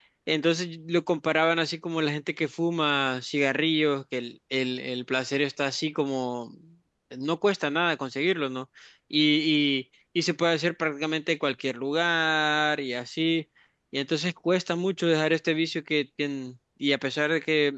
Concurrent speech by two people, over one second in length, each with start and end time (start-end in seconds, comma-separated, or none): none